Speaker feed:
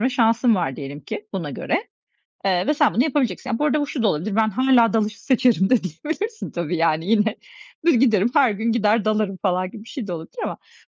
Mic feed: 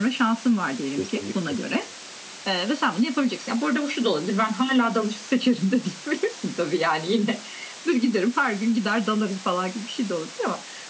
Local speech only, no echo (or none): Kesinlikle.